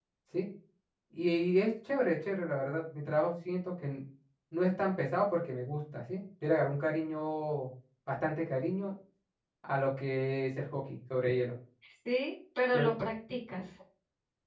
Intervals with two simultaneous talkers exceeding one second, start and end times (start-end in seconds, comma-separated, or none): none